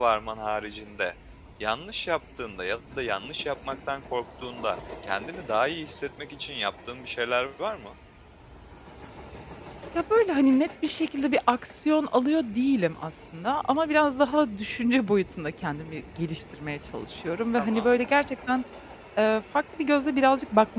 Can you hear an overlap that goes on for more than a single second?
No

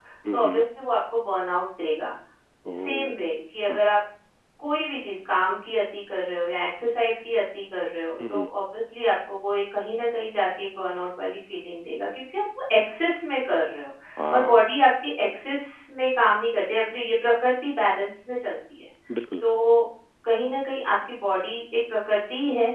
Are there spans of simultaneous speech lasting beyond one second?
No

